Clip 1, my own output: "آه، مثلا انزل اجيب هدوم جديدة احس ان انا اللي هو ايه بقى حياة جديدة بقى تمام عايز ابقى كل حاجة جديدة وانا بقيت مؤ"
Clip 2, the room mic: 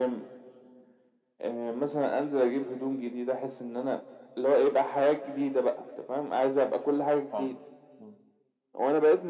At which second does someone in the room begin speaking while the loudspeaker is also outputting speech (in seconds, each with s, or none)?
7.3 s